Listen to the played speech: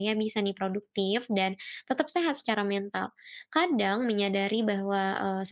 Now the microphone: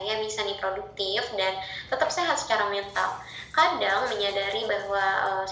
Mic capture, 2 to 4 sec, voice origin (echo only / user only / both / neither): echo only